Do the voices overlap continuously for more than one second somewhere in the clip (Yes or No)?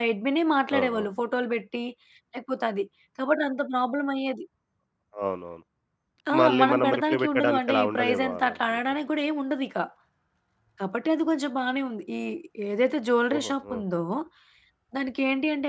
Yes